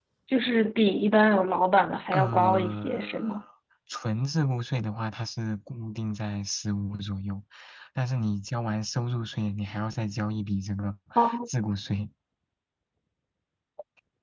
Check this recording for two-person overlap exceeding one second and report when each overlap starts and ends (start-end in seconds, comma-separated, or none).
2.1-3.3